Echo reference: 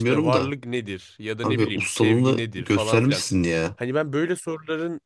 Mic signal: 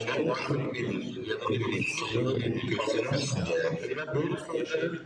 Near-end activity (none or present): present